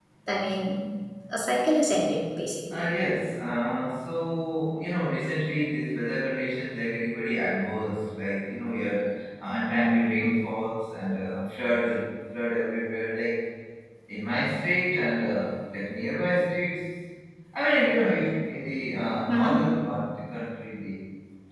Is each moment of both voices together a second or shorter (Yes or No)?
Yes